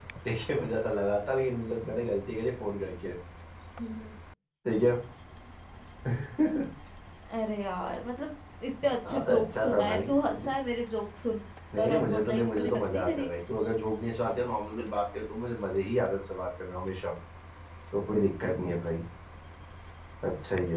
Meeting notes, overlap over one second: present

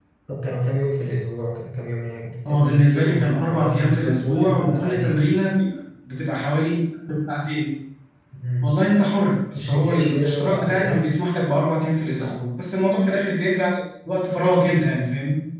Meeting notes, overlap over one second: present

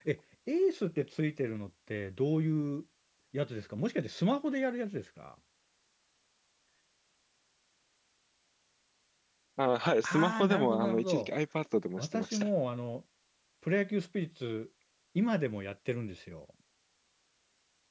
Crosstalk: present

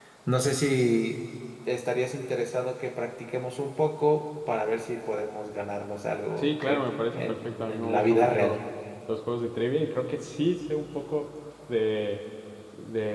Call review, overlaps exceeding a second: present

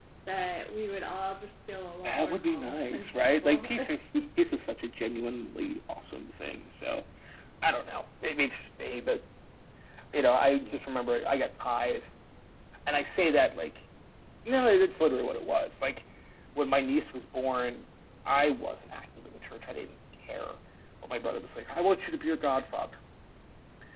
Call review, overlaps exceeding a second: present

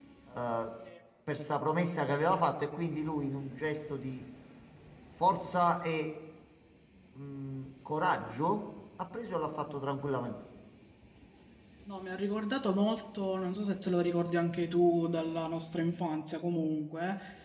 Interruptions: none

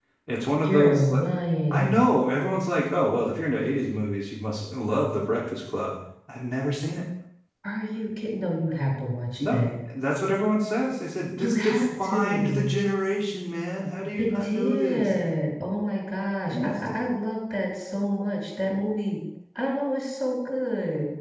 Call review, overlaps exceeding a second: present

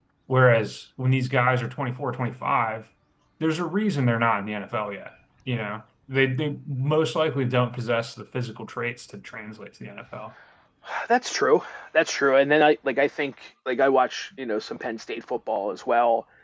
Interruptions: none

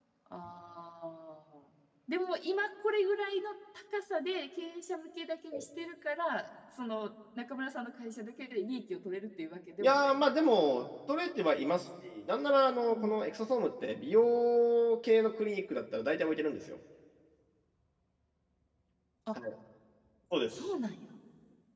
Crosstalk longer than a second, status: none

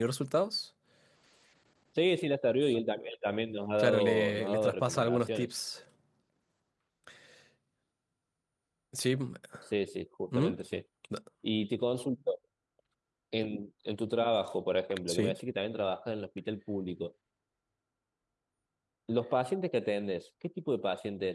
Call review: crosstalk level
present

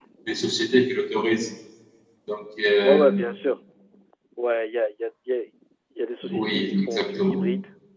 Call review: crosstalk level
present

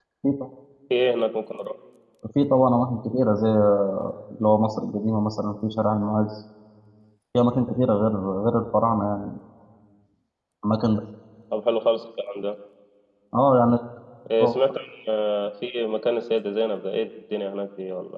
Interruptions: none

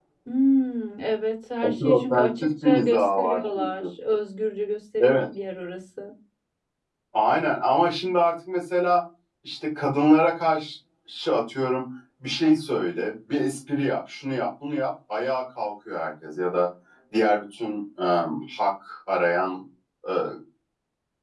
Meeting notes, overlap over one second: present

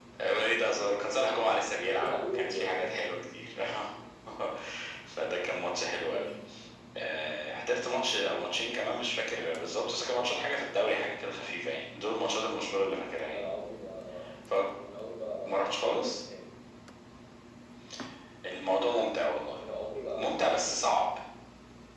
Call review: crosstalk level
present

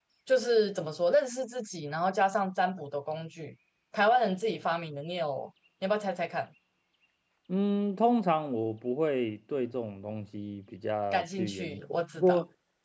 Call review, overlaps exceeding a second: present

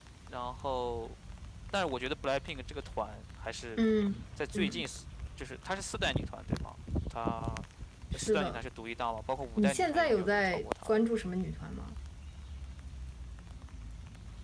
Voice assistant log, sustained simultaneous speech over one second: present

